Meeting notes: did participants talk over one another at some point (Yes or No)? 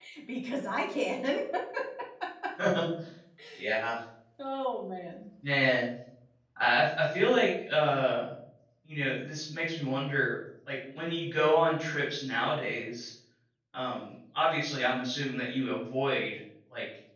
No